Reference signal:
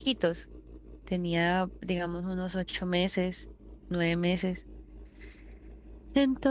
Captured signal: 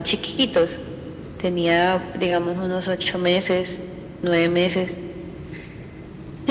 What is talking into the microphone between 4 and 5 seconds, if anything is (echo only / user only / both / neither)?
echo only